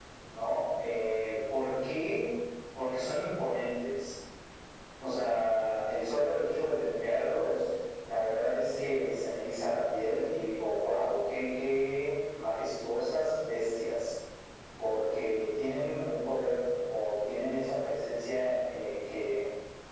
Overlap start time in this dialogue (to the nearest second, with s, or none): none